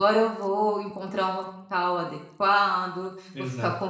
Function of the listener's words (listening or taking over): listening